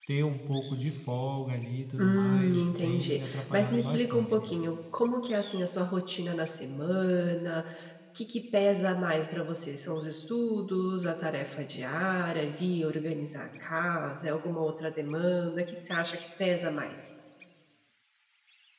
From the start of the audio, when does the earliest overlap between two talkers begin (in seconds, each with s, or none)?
2.0 s